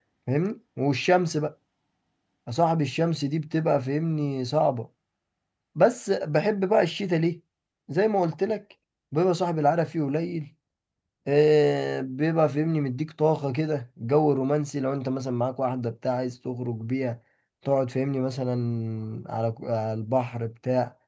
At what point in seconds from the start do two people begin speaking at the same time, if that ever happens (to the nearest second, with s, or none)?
none